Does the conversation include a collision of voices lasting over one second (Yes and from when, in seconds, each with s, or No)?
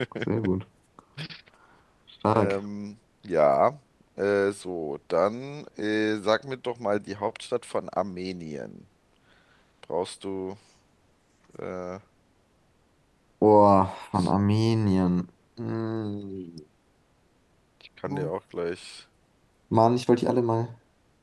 No